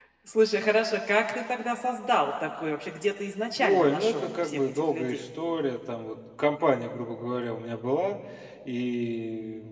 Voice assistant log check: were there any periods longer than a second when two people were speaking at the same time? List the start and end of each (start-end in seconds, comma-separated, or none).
3.6-5.2